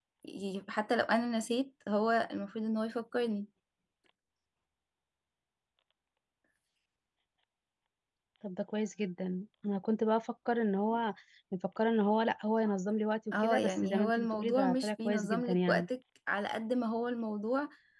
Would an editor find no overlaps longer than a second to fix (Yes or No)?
No